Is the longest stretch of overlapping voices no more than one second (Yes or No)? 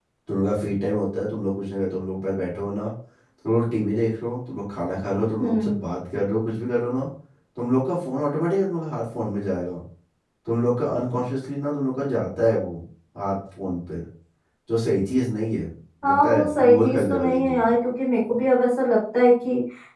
No